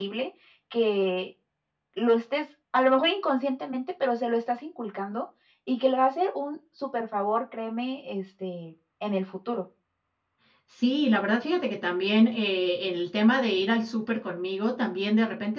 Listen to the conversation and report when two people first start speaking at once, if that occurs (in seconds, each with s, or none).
none